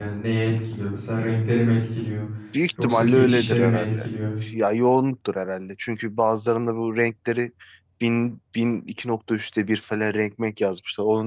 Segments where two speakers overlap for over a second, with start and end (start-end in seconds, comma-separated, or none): 2.8-4.1